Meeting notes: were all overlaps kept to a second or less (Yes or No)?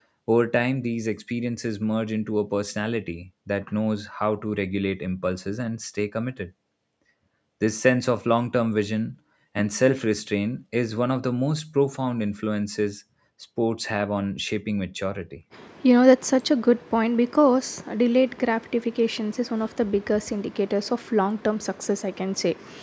Yes